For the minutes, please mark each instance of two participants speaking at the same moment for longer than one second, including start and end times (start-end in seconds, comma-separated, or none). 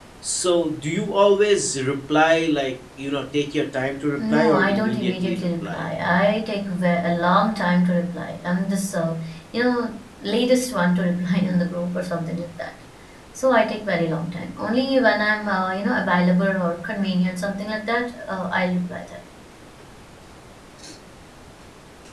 4.2-5.8